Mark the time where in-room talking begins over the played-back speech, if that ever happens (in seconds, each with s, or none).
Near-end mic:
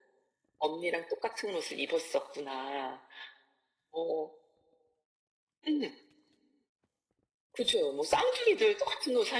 none